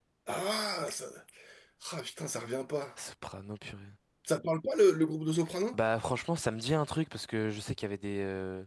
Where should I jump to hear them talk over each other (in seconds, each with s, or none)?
none